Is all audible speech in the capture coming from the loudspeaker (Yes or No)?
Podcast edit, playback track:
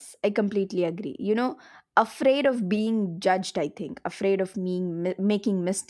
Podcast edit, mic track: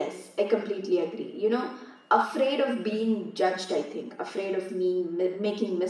Yes